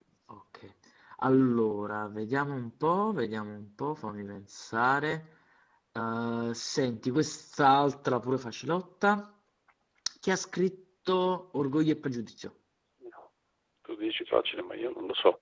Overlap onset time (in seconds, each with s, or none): none